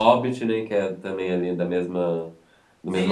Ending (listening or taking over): taking over